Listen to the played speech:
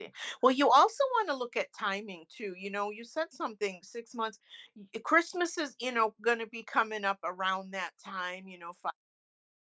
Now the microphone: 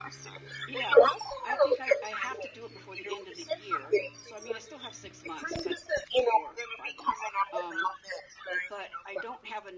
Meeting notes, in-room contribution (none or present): present